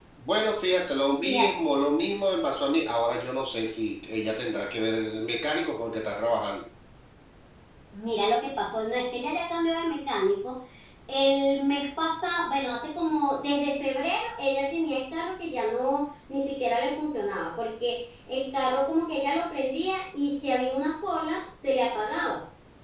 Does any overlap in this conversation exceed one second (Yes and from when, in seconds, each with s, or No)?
No